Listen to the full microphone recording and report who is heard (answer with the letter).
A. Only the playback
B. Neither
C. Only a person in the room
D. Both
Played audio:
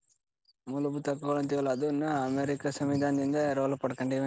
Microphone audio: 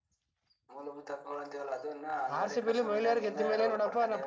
D